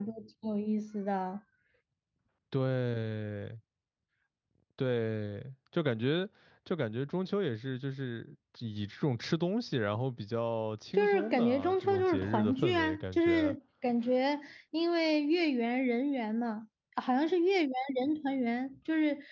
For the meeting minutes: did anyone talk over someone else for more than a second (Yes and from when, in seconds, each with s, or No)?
Yes, from 11.0 s